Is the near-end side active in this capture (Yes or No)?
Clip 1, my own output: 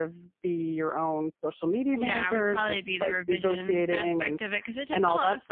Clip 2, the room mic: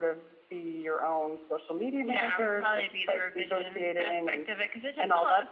No